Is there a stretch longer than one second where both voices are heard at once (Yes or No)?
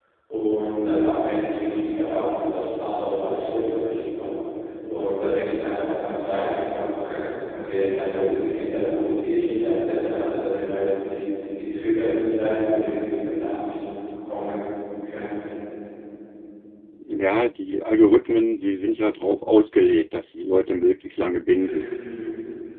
No